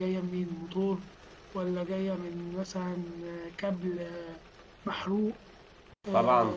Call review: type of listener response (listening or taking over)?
taking over